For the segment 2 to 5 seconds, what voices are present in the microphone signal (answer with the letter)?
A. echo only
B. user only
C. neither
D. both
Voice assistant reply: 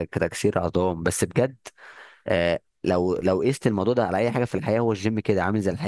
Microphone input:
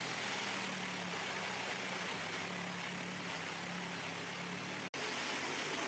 C